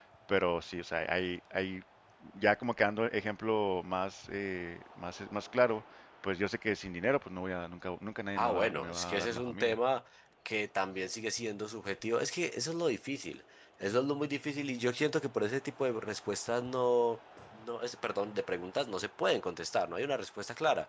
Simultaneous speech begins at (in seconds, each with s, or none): 8.3 s